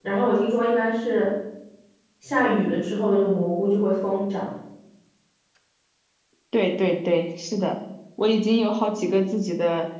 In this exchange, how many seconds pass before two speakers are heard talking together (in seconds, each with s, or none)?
none